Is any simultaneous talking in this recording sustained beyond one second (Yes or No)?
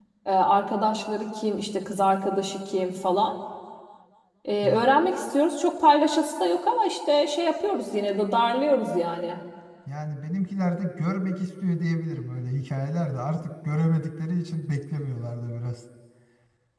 No